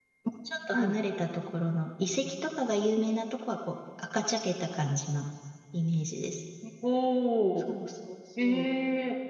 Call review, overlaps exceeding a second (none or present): none